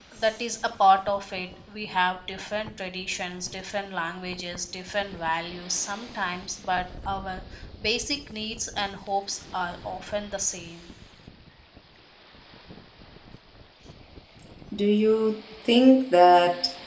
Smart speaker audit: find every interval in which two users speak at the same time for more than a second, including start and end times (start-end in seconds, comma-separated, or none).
none